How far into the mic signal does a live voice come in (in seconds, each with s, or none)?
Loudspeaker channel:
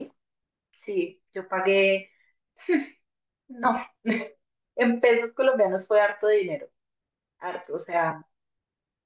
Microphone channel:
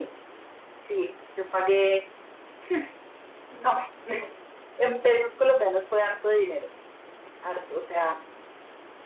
none